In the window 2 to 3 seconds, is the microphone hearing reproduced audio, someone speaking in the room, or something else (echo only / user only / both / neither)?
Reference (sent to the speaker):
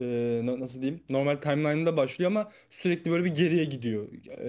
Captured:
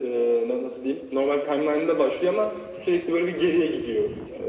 echo only